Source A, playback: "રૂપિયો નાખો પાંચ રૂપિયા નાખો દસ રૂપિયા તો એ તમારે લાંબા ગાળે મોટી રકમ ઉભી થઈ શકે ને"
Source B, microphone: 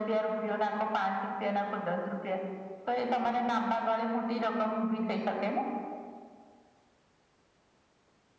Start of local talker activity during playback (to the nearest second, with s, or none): none